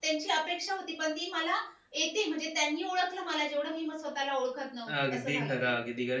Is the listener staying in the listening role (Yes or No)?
No